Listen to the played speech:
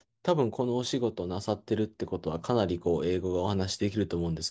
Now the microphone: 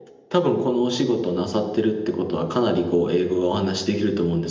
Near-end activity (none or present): none